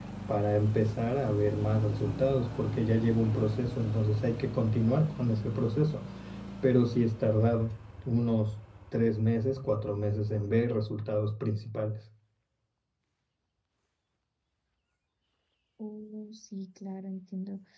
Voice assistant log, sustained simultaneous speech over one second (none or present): none